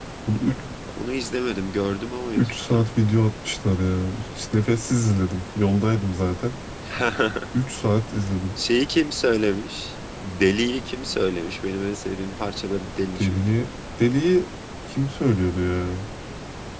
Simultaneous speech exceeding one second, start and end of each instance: none

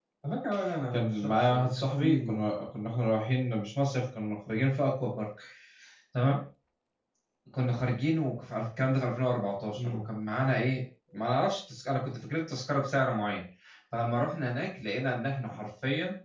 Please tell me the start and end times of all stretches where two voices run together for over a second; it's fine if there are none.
0.9-2.5

